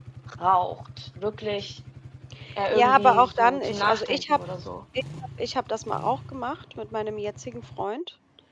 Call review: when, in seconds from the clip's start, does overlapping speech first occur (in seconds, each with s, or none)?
2.7 s